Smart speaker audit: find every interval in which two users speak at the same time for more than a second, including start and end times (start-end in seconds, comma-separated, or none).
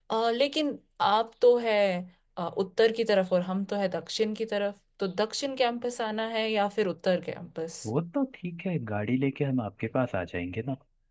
none